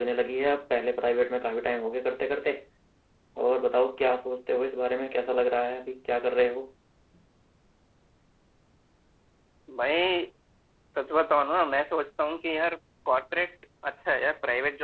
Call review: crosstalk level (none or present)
none